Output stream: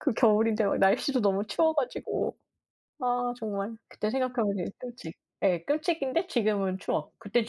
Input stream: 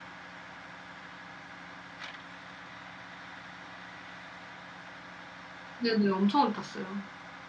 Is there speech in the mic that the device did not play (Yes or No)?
Yes